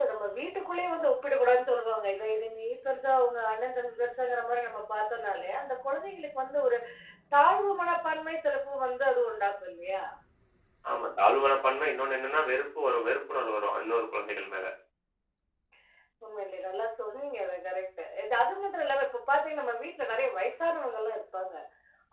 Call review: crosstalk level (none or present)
none